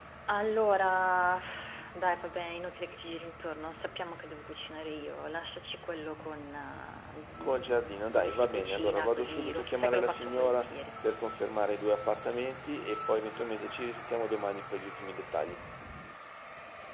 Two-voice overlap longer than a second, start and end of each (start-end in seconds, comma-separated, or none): 7.4-10.8